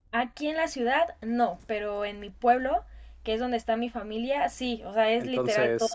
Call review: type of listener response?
taking over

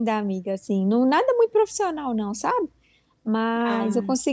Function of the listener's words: listening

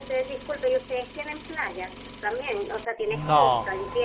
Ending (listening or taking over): taking over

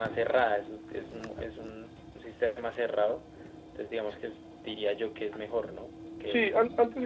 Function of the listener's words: taking over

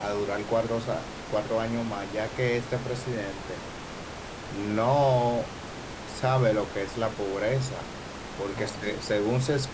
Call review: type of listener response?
listening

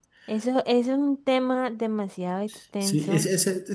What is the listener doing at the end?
taking over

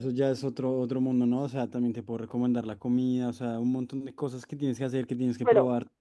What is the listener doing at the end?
taking over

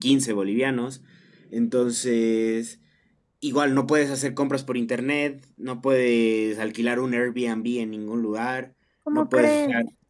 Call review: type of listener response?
listening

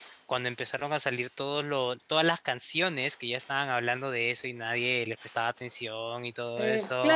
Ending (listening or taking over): taking over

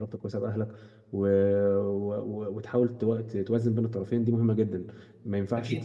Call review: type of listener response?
taking over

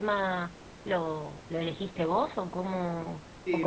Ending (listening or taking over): taking over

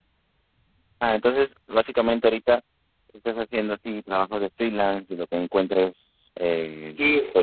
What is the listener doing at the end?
listening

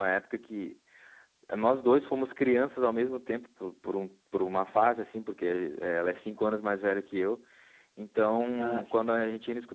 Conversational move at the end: listening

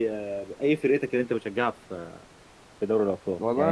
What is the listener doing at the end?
taking over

